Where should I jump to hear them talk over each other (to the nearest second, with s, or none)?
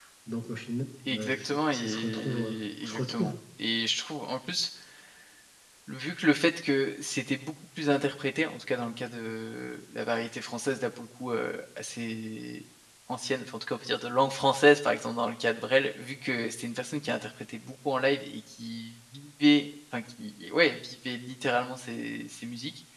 1 s